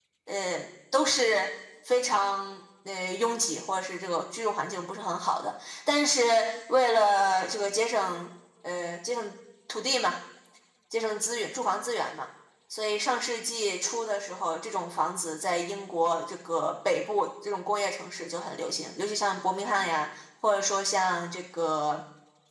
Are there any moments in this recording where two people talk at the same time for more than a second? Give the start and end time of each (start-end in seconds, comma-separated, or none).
none